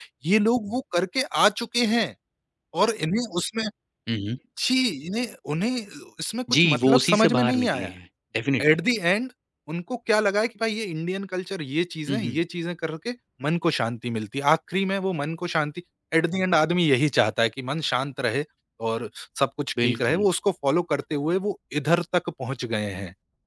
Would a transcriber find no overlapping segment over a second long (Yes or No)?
No